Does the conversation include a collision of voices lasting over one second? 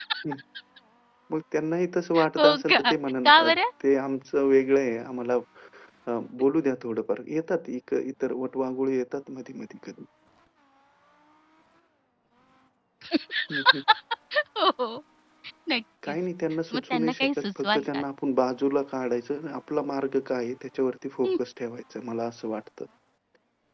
Yes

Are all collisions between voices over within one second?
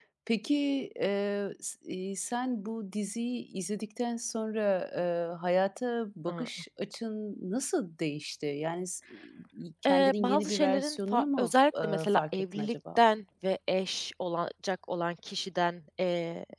No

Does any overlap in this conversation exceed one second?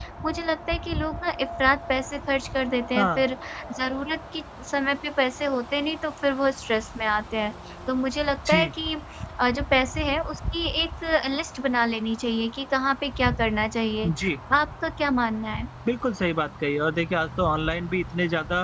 No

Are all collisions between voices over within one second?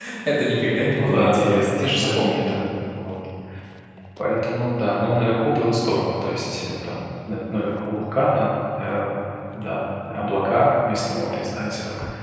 No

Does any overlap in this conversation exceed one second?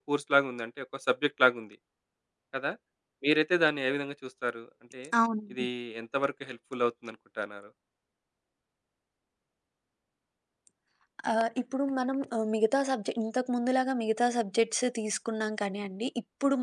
No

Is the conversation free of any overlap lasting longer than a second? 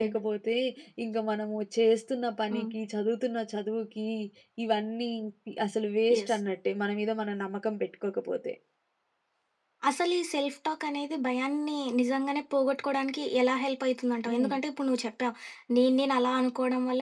Yes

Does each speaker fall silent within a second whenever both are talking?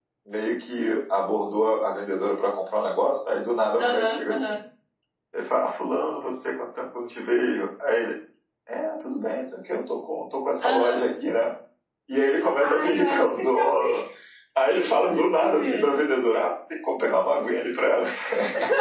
No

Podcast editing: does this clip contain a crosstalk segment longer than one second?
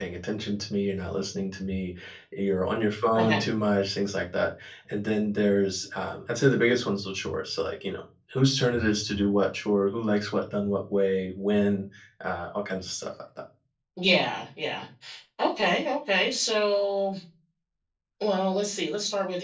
No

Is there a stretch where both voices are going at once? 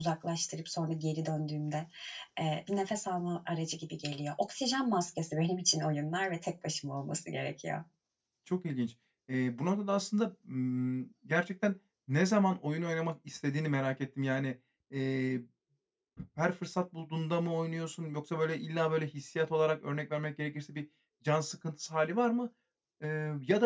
No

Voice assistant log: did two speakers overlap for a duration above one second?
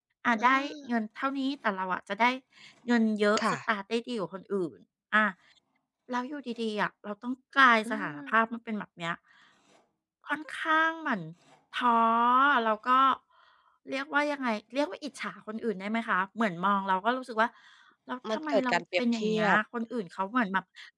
Yes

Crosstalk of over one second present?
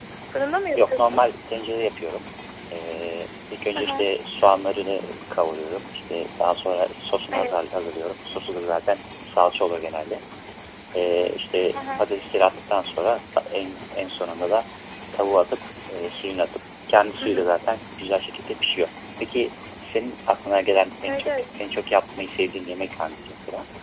No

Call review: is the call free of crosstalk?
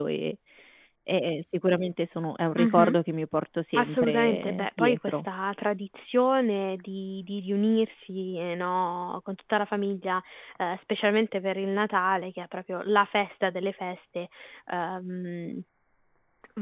No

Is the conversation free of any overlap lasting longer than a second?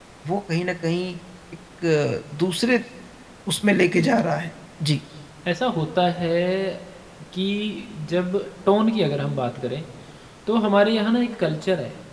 Yes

